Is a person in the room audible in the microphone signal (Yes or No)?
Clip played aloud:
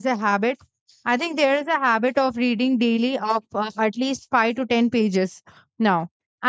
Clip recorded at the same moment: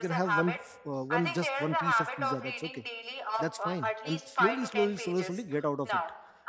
Yes